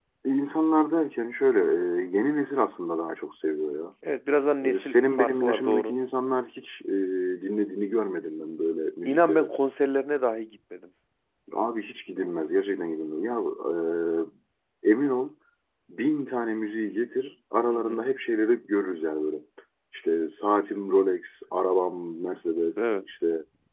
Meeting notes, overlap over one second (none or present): present